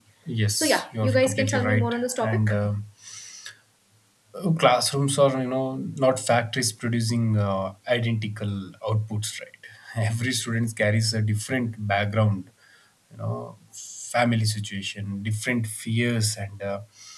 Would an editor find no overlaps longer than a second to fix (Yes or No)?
No